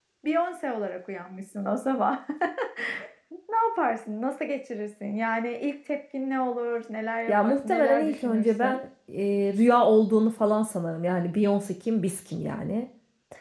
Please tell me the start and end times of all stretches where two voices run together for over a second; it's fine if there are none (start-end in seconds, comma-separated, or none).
7.3-8.8